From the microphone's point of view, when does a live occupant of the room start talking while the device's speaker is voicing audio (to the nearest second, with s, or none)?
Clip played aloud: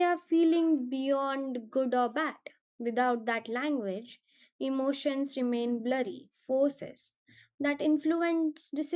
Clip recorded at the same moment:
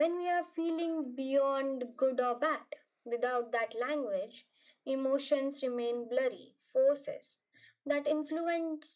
none